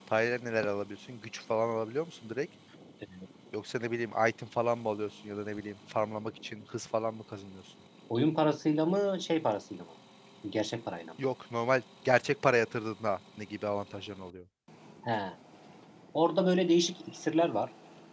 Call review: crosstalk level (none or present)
none